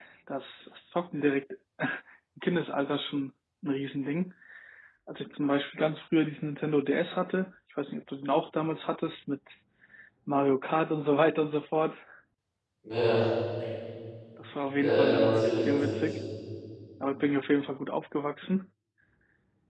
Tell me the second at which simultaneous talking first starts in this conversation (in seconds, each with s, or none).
14.8 s